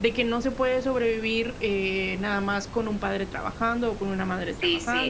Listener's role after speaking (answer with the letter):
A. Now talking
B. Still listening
A